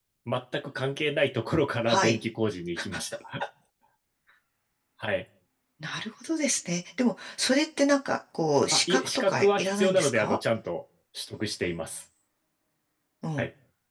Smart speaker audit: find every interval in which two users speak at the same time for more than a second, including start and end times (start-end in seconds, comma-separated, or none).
8.7-10.4